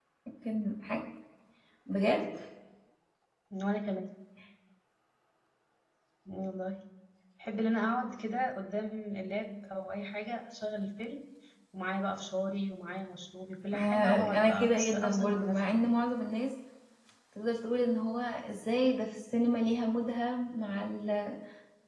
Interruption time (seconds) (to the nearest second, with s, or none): 14 s